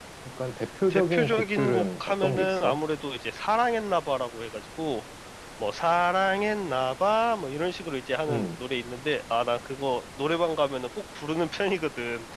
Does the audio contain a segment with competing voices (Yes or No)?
Yes